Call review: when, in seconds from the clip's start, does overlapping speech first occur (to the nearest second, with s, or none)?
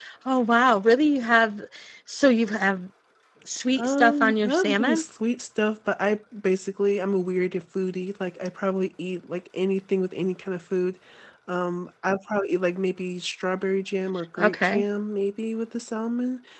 4 s